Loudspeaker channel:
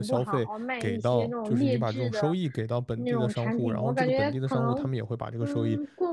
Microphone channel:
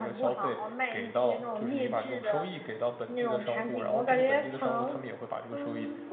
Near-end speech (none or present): none